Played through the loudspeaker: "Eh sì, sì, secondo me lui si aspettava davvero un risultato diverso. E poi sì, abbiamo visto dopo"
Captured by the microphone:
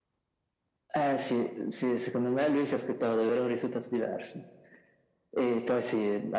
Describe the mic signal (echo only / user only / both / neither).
echo only